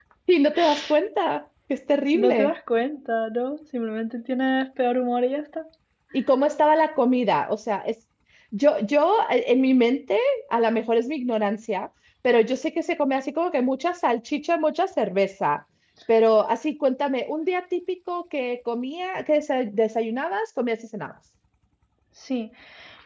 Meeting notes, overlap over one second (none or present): none